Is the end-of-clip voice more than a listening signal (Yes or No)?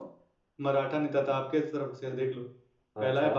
No